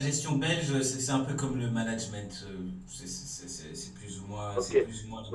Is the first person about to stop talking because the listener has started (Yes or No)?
Yes